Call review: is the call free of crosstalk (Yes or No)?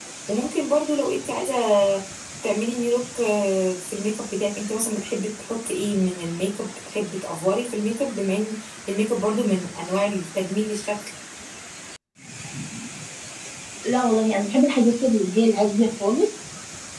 Yes